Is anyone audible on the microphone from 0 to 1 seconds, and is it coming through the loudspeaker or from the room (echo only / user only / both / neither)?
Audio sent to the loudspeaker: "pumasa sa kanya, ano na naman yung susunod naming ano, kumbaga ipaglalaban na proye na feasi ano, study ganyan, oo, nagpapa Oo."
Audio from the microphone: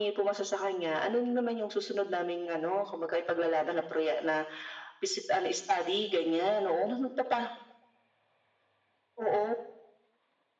echo only